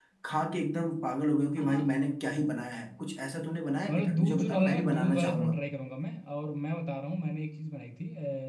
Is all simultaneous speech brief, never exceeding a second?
No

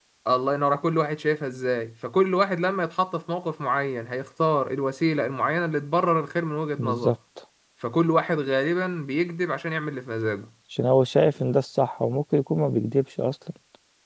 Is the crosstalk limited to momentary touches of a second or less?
Yes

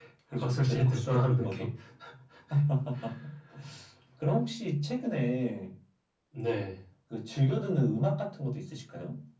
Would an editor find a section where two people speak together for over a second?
Yes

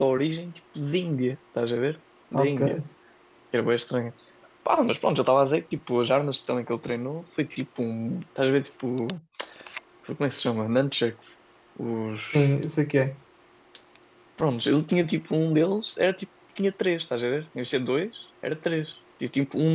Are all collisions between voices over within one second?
Yes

